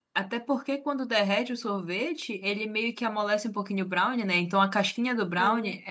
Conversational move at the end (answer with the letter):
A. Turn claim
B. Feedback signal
B